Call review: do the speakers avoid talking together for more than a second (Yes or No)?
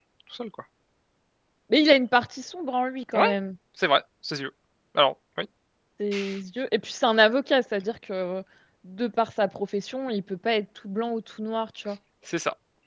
Yes